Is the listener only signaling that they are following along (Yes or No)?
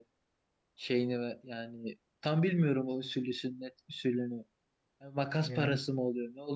Yes